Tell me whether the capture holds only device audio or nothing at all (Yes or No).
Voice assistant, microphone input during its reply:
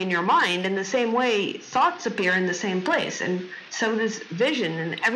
Yes